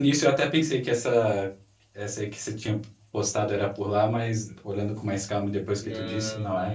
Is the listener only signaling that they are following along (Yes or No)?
No